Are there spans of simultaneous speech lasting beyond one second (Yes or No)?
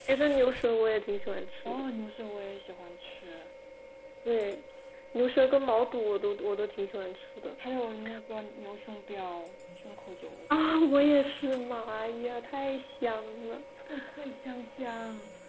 No